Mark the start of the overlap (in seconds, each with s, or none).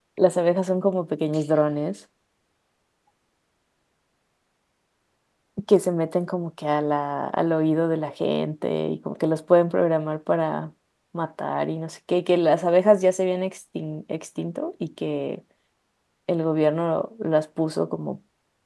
none